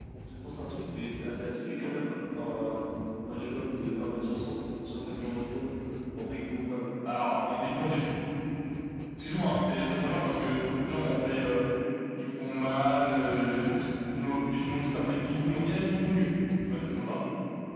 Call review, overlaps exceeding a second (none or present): none